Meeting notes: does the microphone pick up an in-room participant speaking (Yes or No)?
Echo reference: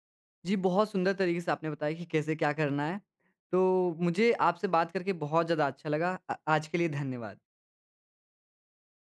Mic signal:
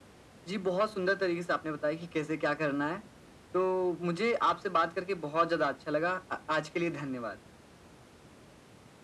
No